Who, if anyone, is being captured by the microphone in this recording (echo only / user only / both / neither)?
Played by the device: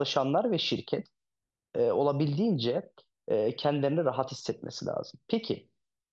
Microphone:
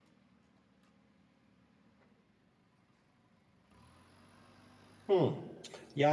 user only